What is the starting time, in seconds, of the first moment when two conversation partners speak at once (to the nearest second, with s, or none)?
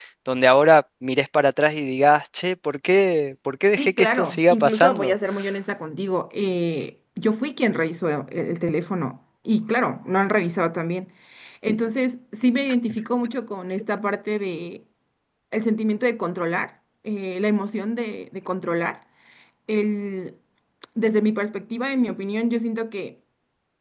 4 s